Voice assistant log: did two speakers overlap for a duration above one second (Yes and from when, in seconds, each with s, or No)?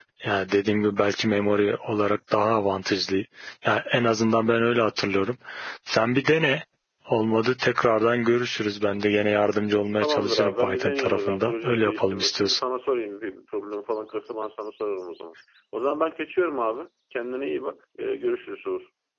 Yes, from 10.0 s